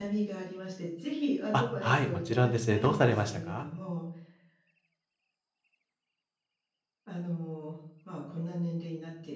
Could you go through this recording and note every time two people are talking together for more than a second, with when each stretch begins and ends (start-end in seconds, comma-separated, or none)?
1.5-3.6